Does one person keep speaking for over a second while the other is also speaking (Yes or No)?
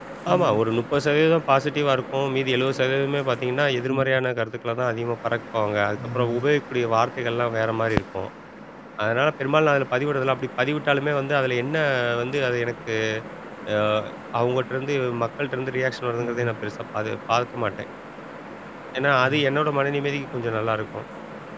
No